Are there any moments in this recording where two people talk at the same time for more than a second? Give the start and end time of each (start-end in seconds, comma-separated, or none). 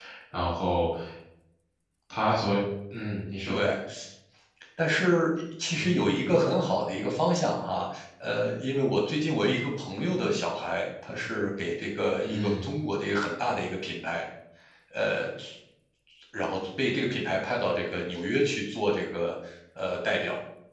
none